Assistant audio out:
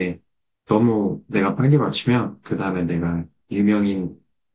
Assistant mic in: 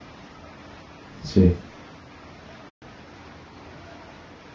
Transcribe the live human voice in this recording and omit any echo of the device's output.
그렇지.

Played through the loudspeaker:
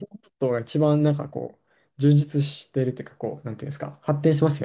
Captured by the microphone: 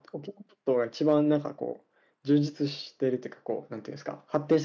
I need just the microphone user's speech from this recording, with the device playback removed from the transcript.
none

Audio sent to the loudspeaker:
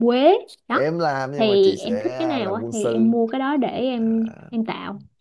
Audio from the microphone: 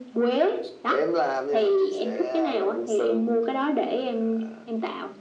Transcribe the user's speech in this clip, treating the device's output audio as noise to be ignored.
none

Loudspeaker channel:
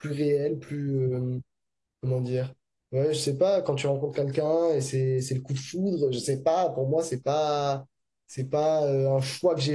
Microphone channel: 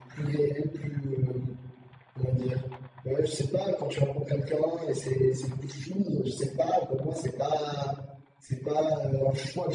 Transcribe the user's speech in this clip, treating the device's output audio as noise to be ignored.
none

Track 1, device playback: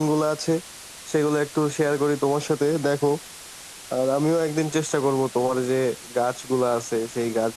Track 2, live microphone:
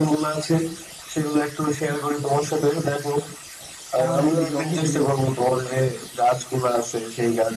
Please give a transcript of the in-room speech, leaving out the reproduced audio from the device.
পার্মানেন্টলি জব হিসেবে নিচ্ছি আর কি

